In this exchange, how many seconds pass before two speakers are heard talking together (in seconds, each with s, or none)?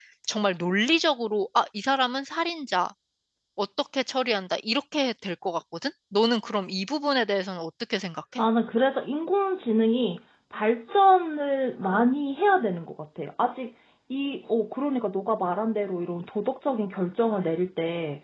none